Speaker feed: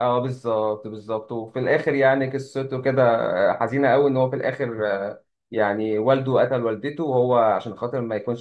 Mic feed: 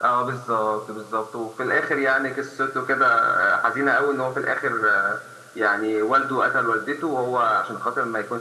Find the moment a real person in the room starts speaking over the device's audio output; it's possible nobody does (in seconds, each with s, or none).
none